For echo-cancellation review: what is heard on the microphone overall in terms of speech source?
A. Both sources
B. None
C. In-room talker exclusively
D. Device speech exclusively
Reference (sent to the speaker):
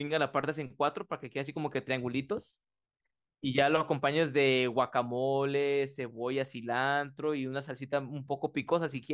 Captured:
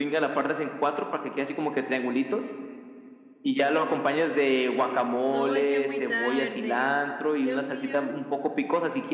A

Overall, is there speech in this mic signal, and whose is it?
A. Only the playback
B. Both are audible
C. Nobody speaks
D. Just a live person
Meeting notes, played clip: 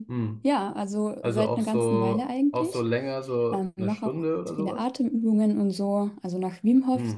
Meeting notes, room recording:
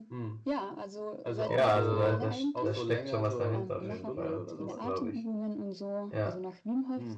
B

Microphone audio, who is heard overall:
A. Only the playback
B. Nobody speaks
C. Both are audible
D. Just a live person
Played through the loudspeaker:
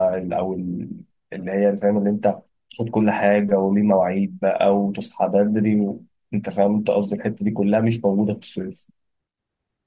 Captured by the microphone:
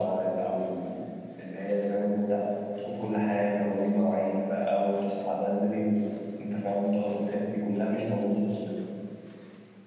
A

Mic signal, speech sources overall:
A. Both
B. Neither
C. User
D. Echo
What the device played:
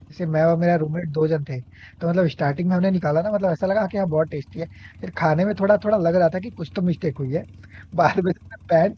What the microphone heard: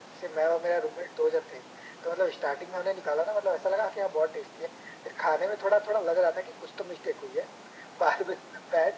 D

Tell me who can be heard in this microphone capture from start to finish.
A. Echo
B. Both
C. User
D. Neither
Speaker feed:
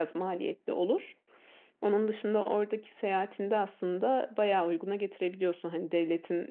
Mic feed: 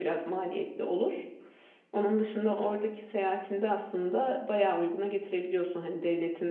A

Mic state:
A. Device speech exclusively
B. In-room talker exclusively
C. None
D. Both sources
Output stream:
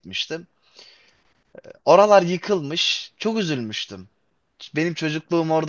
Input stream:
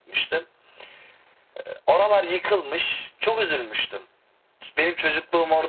A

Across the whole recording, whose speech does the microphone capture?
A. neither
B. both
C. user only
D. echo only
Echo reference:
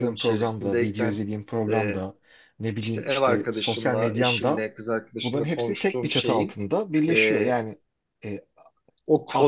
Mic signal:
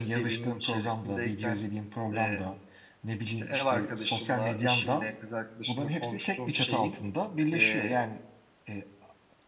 D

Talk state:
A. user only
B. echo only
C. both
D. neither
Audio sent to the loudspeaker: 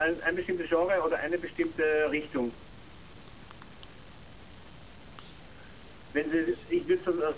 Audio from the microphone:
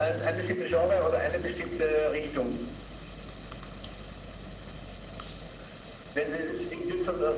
B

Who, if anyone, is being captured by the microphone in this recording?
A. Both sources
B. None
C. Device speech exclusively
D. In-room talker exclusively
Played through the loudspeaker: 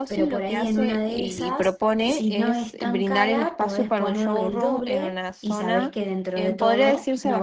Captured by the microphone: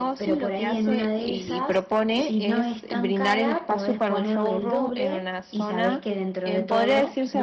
C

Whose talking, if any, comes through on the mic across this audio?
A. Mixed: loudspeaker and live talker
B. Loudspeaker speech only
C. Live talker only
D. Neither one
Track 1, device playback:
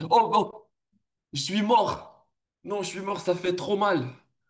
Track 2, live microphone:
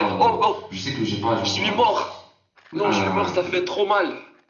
A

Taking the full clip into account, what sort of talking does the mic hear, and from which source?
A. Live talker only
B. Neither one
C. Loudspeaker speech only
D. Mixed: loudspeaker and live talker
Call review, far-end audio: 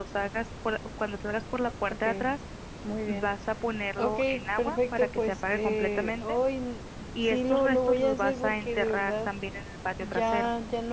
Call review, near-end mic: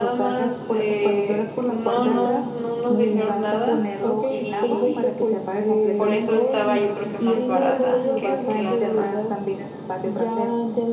D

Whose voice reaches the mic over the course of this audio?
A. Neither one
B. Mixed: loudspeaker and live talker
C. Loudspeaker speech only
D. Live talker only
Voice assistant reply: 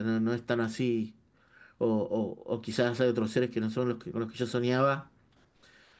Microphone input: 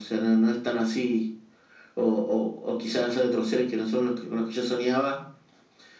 C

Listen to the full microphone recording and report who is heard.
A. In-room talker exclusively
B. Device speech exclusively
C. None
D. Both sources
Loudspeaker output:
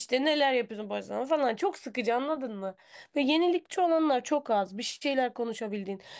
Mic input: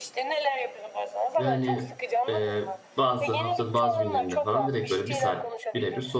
D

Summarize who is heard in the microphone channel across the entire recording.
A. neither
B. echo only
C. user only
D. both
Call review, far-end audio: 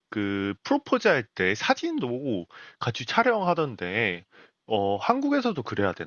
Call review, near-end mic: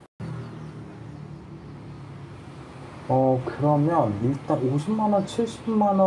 C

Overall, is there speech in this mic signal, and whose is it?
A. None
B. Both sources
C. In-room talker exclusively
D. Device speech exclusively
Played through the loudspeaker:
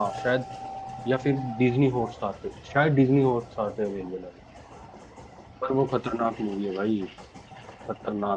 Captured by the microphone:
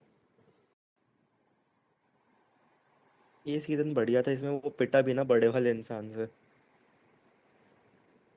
C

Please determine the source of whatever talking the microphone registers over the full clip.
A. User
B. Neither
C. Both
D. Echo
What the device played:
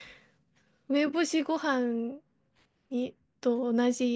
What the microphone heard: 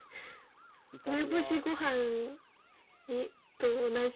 C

